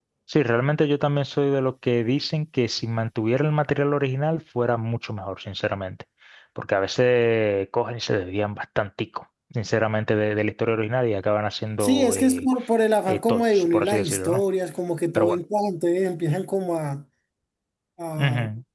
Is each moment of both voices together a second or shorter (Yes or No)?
No